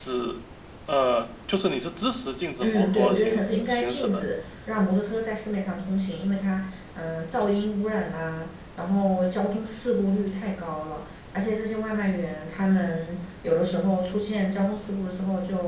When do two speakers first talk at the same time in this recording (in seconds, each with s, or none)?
2.6 s